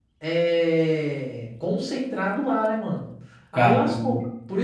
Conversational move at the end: listening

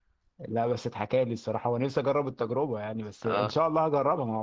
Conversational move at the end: listening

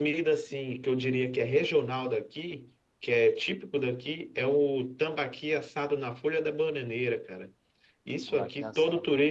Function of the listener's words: listening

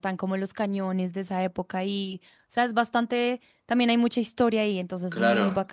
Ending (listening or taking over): taking over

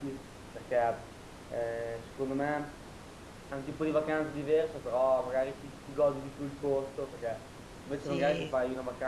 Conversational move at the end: listening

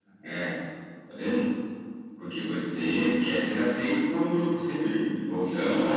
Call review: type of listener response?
taking over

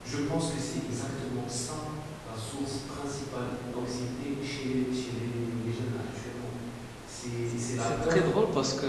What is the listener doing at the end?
taking over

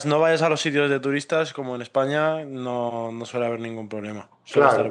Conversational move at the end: taking over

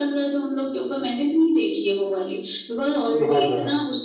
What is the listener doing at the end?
listening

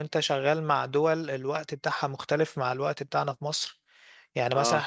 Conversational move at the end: listening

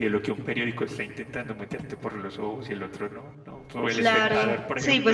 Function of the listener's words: taking over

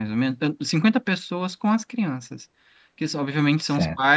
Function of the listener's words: listening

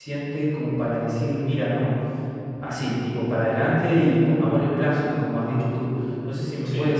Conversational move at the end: listening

